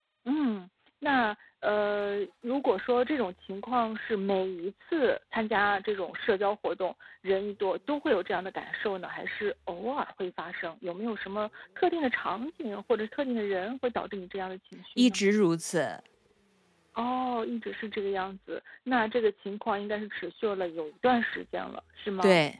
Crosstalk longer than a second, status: none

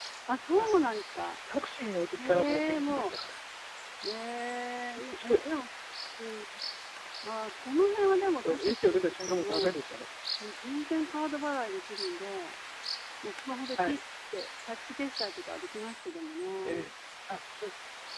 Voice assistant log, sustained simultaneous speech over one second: present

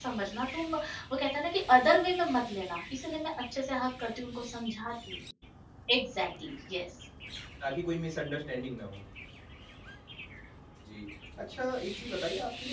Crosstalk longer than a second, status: none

